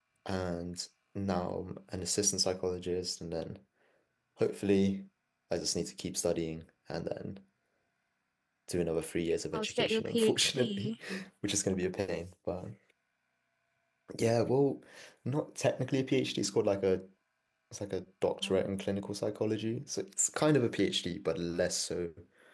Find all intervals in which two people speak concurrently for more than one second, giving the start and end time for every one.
9.5-10.9

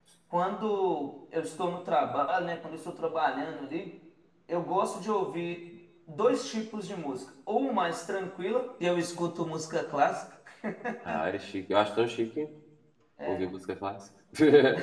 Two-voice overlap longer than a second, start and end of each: none

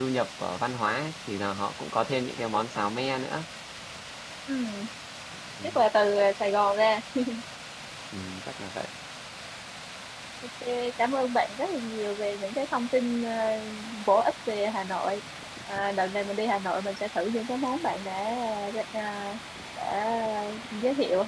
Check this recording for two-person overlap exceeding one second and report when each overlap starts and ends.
none

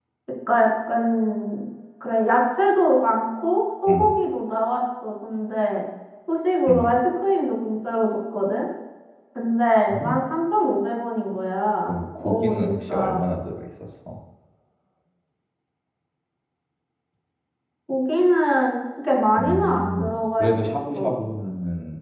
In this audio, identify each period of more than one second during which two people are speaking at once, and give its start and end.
11.9-13.2, 19.4-21.2

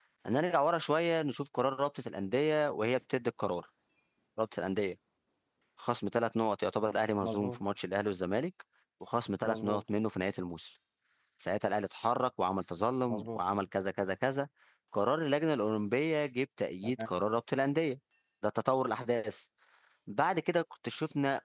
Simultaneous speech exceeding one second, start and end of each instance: none

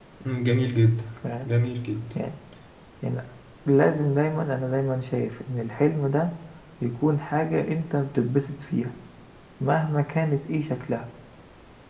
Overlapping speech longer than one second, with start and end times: none

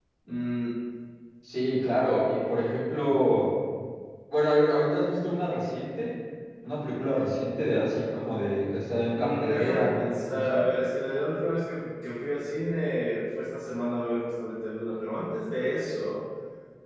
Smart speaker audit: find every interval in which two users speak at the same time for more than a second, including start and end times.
9.1-10.7

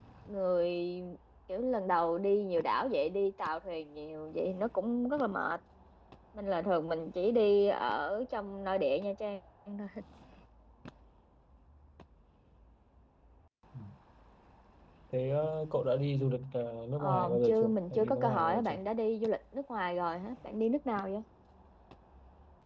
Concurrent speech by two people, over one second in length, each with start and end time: 17.0-18.8

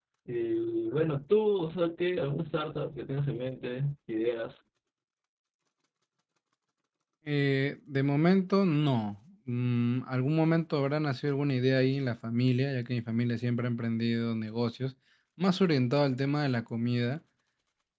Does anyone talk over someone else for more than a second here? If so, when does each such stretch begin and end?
none

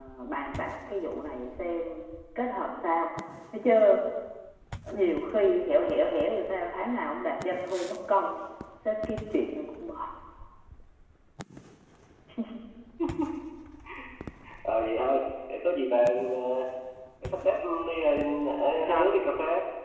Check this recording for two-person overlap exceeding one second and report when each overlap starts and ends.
none

